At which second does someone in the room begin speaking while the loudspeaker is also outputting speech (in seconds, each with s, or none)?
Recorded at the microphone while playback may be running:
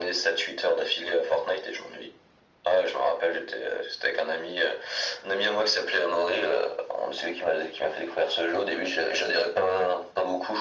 none